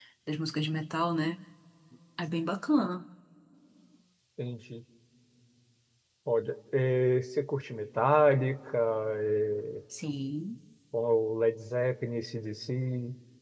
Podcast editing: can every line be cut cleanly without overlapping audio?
Yes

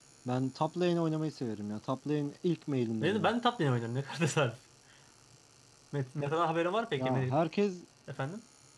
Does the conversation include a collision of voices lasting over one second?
No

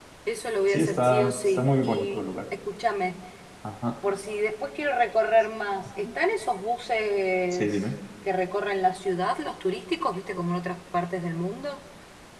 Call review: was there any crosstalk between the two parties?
Yes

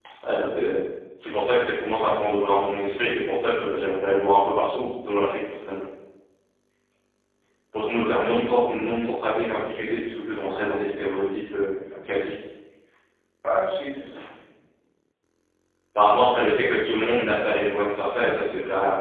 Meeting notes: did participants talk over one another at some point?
Yes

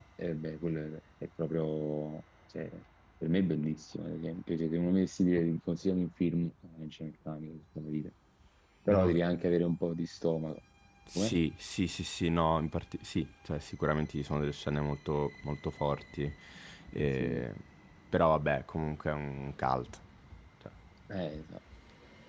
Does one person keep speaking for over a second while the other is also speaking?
No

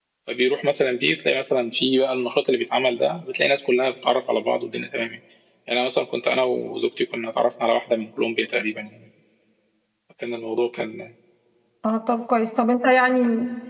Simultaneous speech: No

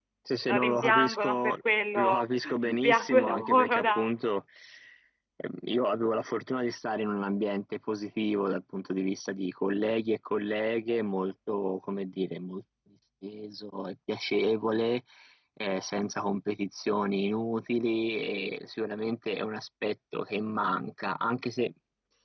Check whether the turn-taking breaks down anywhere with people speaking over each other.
Yes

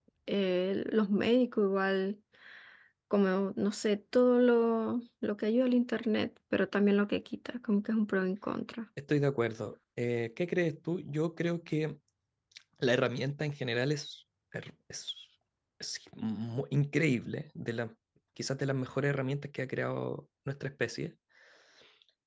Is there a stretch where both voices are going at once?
No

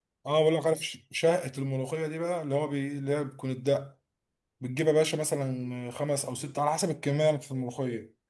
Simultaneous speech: No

